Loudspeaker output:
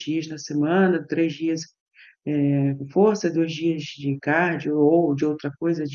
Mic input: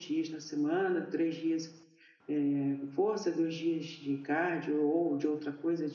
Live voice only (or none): none